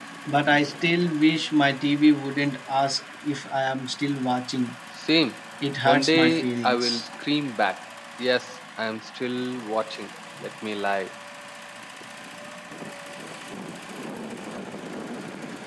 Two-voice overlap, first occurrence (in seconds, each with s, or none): 5.8 s